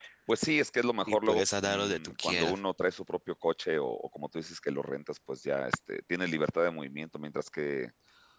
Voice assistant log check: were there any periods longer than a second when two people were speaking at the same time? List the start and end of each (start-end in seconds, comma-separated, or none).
1.1-2.6